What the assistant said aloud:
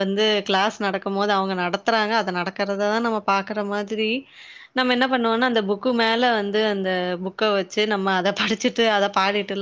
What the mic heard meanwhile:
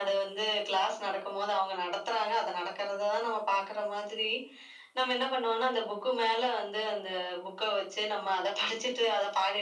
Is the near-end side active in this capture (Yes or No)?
No